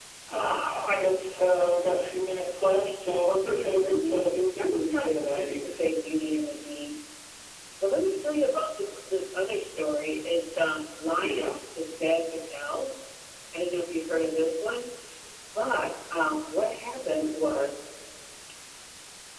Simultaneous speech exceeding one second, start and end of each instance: 3.4-5.8

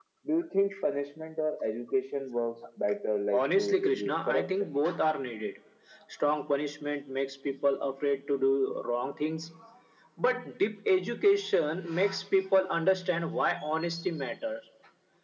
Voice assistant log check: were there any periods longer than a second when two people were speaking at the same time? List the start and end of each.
3.4-4.7

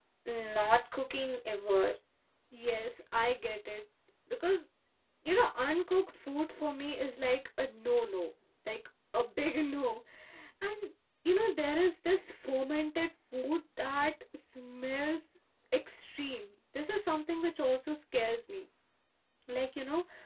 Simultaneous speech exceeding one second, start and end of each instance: none

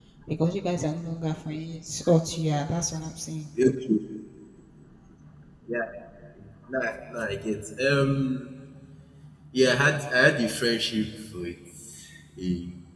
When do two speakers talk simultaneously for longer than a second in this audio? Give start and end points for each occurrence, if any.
none

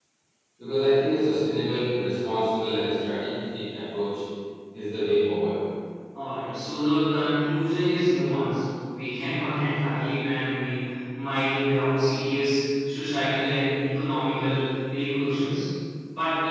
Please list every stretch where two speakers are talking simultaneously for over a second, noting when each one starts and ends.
none

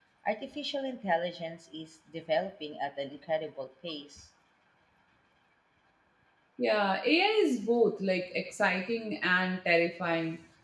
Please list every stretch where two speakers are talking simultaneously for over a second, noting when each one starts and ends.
none

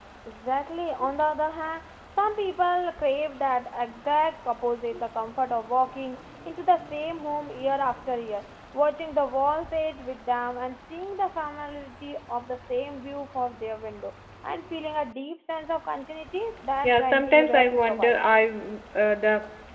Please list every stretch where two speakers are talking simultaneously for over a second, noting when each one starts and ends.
16.8-18.3

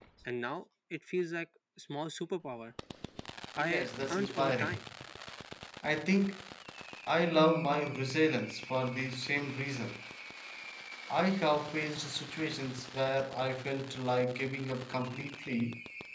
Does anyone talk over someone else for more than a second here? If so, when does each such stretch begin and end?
3.6-4.8

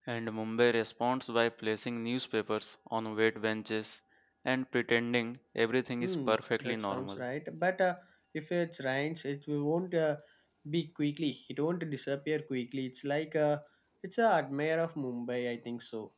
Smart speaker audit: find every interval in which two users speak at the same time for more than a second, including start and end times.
6.0-7.2

